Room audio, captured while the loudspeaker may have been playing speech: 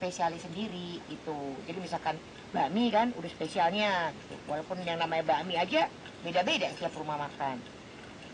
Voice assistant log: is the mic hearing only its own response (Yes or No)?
Yes